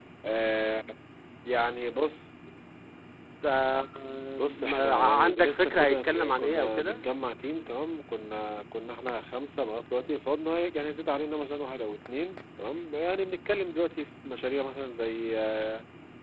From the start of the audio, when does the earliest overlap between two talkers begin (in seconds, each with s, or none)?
4.6 s